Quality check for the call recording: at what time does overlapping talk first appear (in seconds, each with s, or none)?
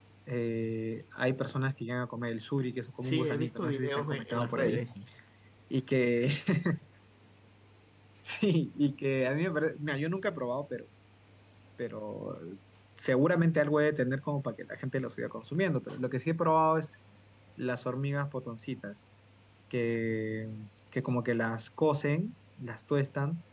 3.0 s